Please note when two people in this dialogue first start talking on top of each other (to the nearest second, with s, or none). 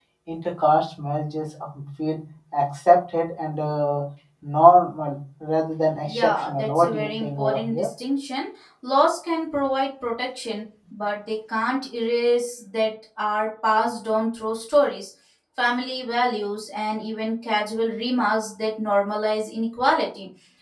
6 s